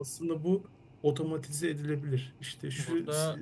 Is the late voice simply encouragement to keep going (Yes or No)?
Yes